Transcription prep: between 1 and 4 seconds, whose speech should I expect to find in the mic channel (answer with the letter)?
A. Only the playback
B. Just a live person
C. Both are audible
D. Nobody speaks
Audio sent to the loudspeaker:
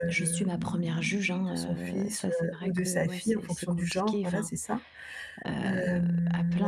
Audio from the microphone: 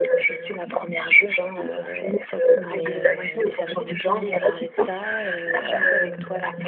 C